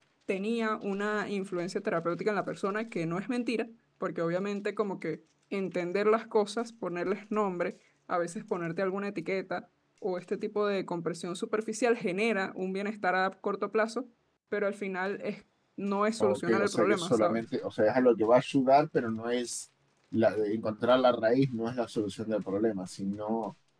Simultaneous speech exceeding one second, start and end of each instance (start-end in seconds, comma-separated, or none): 16.2-17.4